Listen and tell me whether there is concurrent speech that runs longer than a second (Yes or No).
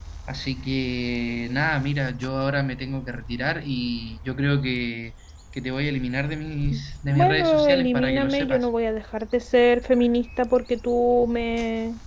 Yes